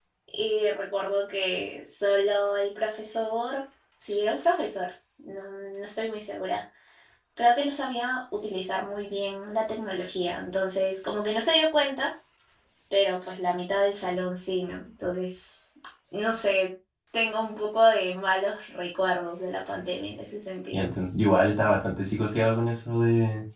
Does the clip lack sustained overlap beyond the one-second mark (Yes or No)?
Yes